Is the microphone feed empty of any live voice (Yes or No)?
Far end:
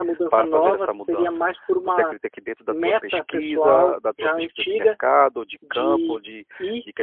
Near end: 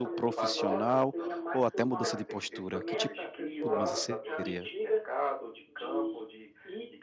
No